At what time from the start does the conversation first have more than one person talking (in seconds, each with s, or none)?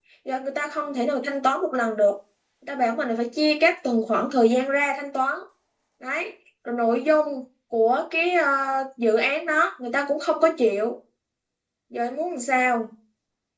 none